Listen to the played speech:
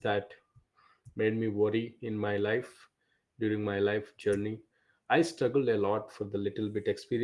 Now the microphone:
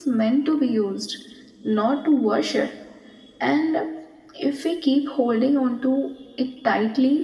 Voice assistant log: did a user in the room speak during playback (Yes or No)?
Yes